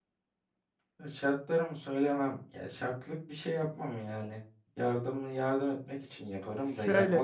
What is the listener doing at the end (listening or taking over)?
listening